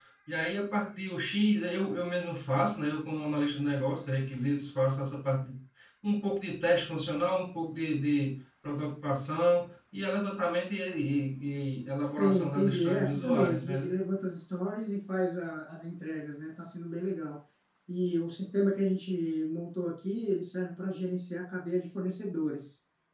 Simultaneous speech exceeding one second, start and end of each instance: 12.2-13.9

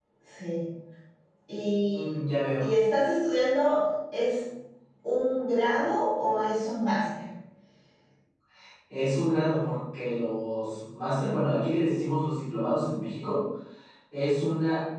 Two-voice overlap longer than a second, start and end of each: none

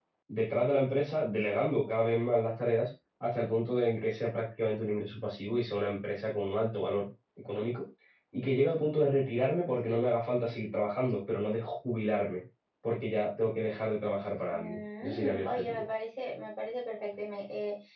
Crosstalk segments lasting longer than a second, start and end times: 14.5-15.9

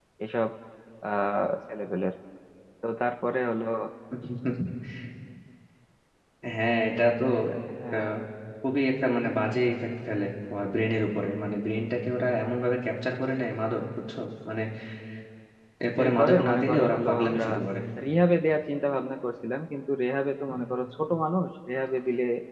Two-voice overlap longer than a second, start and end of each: 16.0-17.4

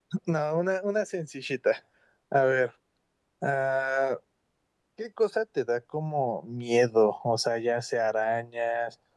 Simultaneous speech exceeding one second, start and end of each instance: none

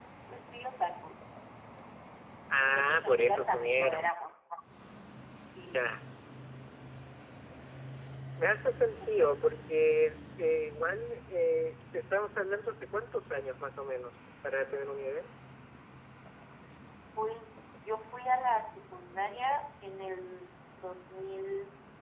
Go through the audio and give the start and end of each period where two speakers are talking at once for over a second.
2.7-4.1

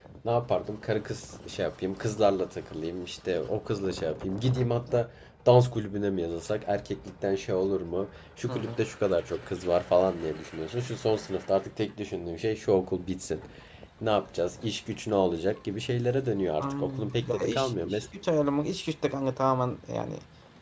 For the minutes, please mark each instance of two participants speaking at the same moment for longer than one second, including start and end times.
16.6-18.0

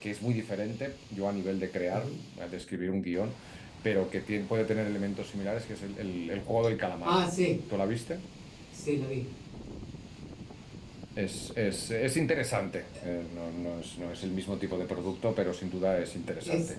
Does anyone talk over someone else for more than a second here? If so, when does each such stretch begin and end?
none

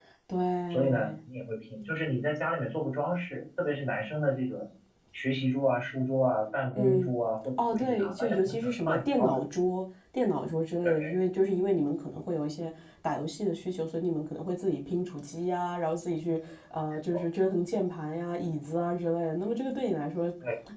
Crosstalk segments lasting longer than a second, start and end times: 7.7-9.4

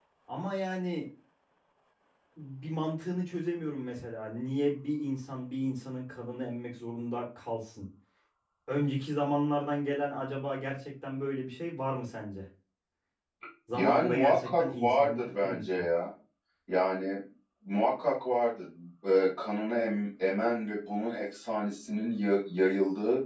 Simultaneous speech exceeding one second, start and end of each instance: 13.7-15.9

